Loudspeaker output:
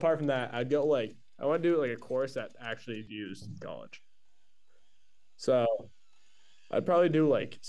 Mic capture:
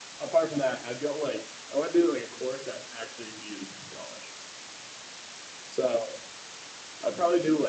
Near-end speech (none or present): none